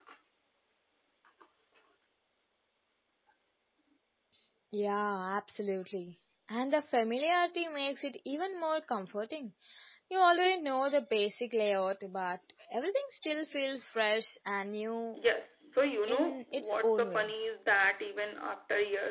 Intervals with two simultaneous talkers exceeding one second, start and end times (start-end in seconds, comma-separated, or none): 16.1-17.3